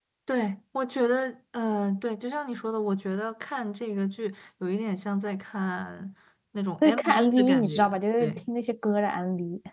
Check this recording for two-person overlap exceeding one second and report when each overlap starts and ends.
6.8-8.4

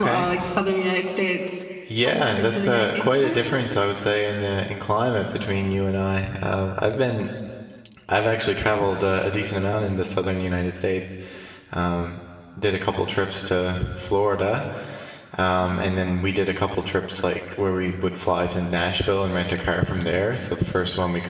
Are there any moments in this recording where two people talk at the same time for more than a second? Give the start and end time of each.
2.0-3.4

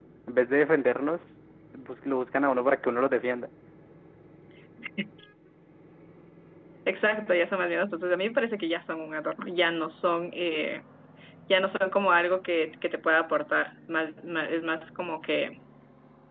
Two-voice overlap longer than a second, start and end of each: none

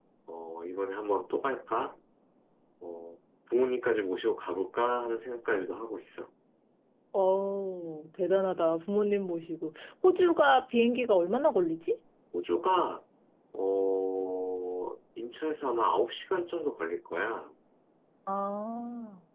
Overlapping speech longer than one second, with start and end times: none

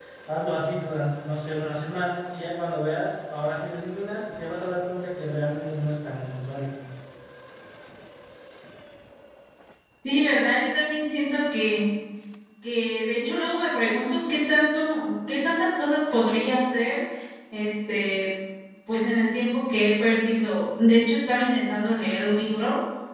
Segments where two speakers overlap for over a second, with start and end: none

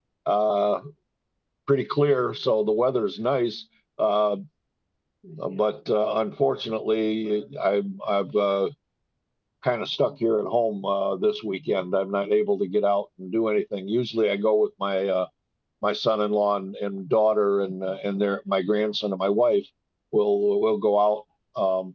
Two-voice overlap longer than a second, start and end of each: none

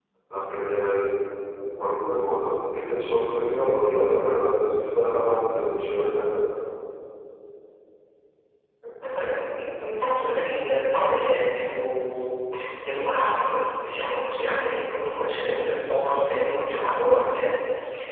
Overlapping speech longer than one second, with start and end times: none

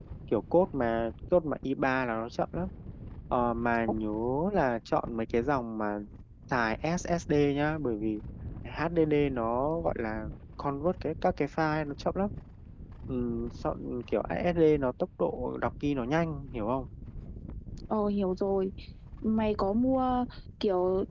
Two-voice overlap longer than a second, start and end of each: none

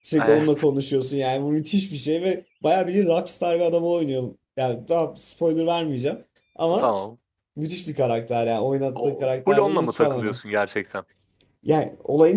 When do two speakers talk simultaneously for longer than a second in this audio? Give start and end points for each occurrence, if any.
9.0-10.4

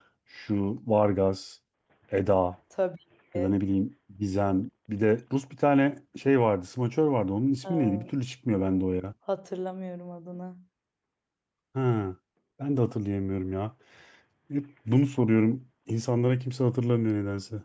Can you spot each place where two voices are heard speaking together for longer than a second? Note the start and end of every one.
none

